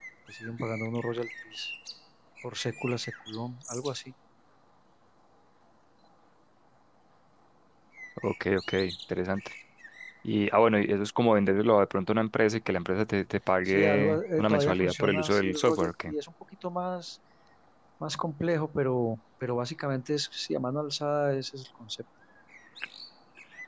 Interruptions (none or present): present